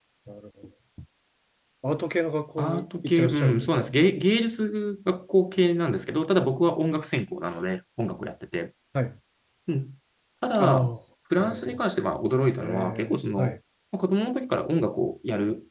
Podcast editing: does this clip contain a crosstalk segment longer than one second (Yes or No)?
Yes